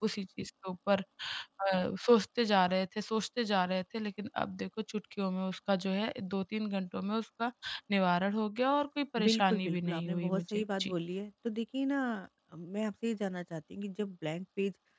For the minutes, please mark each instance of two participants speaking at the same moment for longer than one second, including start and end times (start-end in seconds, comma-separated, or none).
9.2-10.9